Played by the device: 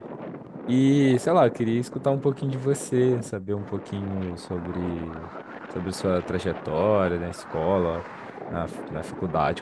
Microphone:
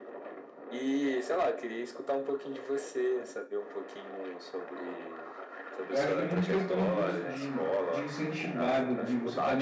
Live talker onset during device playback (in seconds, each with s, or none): 5.8 s